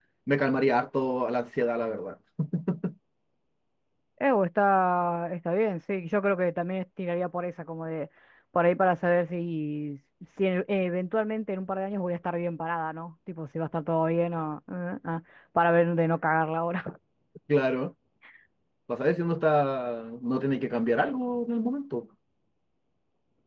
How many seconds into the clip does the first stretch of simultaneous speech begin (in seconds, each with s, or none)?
none